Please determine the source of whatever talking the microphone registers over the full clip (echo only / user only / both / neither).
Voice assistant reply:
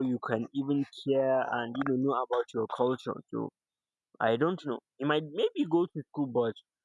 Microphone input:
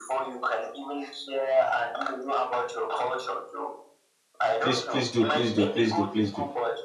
both